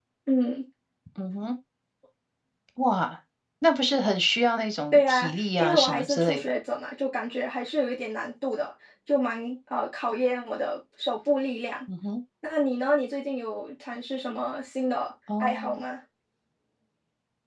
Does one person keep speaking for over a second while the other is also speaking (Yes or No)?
Yes